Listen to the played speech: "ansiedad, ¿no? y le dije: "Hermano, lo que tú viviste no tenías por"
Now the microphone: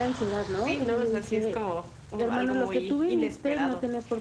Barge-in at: 1 s

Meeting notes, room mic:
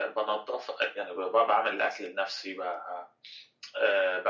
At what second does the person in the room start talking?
none

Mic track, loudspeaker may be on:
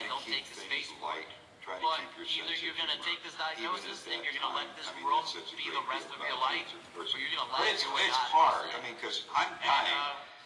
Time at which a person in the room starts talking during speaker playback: none

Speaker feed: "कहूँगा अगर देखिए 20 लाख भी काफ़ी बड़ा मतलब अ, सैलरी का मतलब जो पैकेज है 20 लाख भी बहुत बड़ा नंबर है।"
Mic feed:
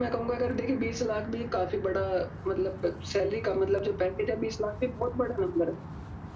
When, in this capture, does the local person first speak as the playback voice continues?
none

